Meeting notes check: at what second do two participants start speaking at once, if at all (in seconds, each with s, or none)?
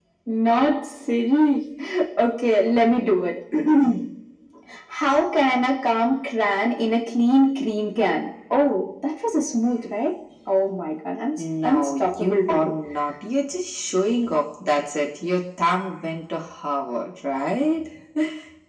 11.4 s